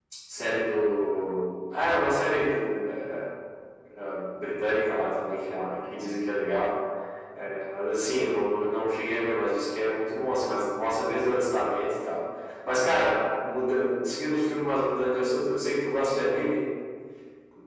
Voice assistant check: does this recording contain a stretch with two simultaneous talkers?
No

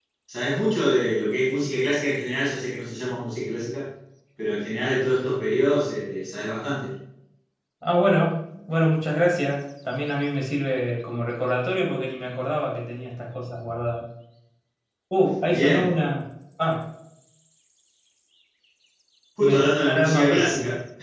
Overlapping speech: Yes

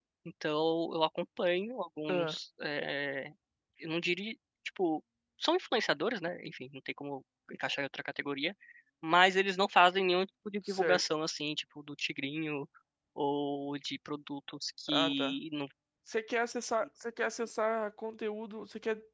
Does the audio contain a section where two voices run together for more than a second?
No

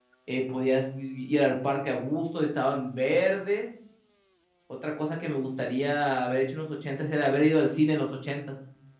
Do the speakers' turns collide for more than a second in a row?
No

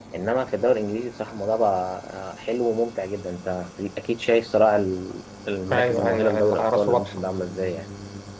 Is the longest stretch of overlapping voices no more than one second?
No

